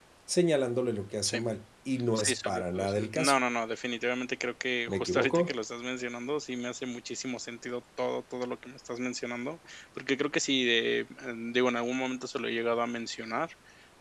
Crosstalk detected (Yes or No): Yes